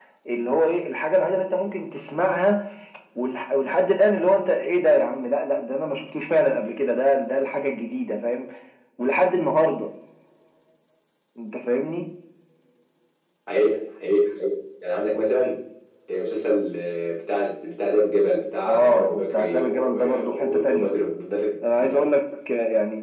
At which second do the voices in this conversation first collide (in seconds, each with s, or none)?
18.7 s